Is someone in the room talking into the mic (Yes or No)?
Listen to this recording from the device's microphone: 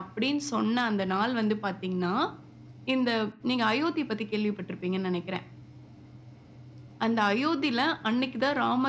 No